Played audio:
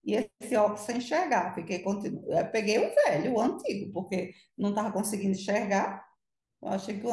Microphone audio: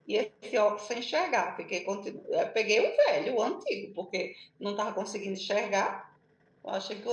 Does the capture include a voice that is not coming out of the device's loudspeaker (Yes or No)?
No